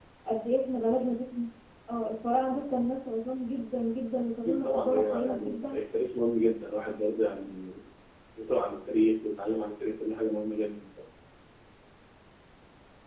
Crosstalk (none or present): present